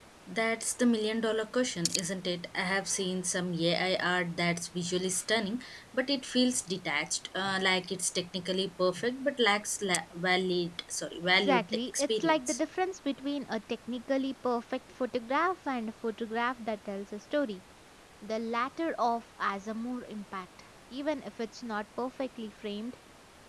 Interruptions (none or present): present